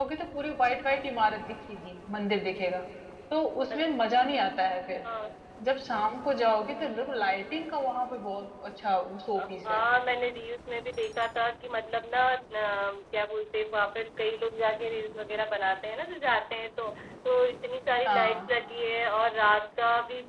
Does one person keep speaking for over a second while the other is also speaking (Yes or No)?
No